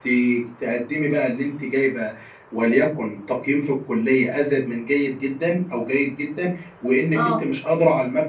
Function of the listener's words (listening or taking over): listening